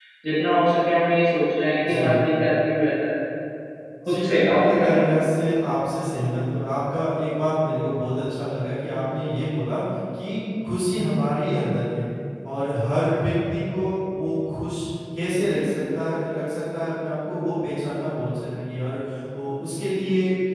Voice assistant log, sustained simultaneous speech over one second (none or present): present